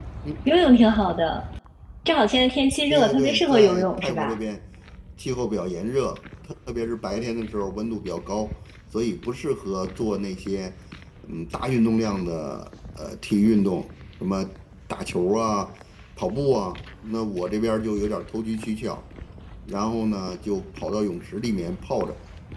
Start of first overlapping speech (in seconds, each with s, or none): 2.9 s